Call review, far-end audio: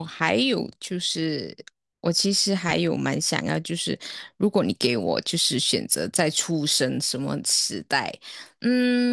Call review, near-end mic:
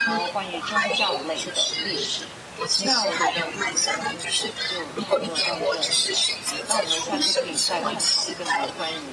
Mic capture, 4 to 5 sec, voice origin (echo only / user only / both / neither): both